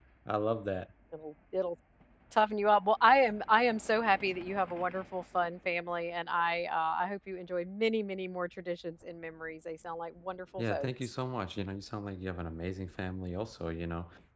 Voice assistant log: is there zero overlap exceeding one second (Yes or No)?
Yes